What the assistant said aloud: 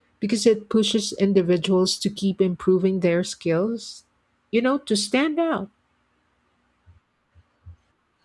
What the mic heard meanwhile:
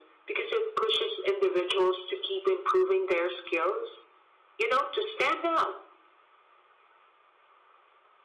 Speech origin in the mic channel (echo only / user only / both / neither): echo only